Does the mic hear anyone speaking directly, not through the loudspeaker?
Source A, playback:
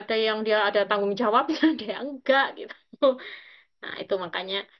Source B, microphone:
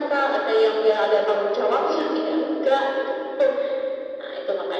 No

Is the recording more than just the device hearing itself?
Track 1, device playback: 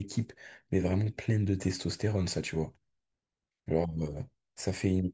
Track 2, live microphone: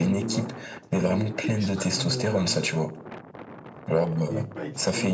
Yes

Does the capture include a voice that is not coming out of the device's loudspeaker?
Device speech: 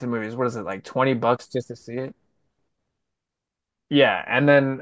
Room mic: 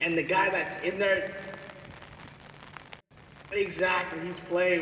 Yes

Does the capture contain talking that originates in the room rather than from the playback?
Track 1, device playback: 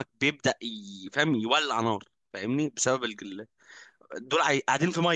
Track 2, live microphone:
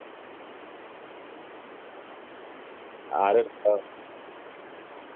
Yes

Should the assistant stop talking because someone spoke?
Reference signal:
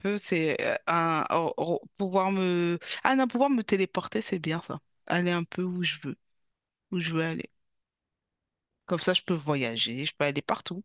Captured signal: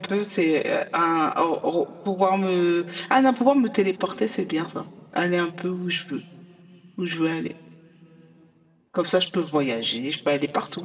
No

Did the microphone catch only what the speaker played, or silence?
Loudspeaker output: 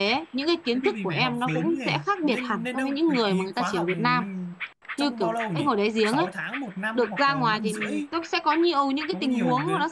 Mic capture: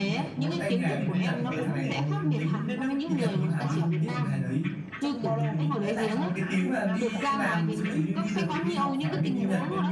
No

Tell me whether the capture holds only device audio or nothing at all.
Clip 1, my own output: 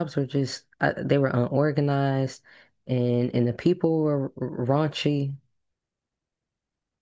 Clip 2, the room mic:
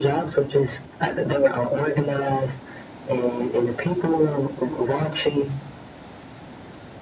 Yes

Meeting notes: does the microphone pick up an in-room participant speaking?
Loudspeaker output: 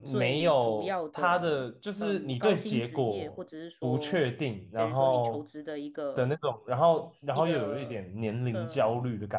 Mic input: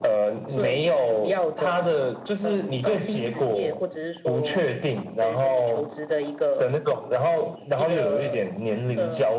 No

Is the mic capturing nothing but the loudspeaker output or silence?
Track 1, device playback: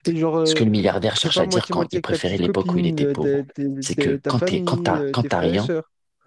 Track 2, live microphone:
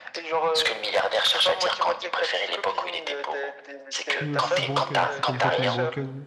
No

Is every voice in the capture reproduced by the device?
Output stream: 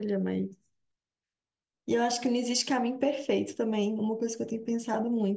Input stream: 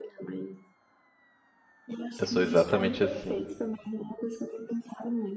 No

